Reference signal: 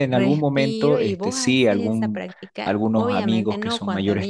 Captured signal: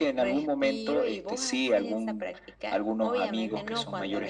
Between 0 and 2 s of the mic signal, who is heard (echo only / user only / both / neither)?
echo only